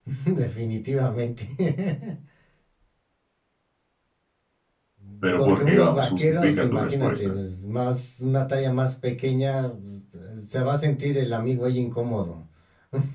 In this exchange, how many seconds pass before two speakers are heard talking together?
5.4 s

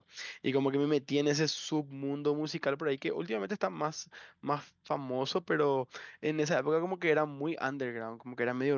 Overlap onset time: none

